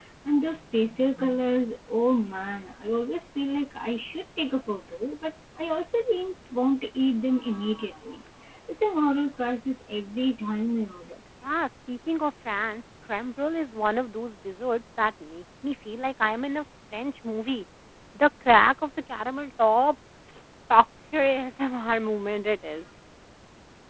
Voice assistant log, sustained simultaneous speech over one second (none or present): none